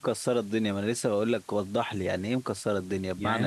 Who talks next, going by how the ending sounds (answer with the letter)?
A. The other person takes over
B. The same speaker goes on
A